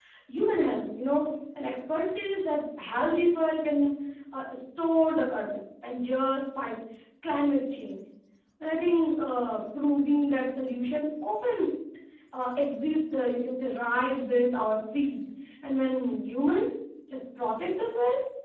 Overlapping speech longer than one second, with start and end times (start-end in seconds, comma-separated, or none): none